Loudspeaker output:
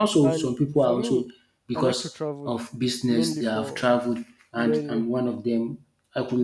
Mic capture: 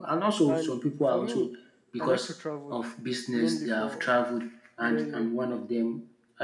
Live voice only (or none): none